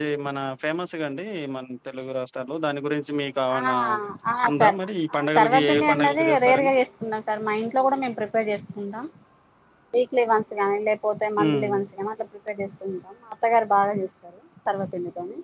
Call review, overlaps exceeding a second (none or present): present